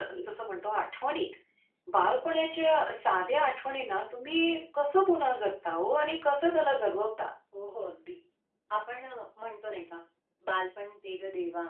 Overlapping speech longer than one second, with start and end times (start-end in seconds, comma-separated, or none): none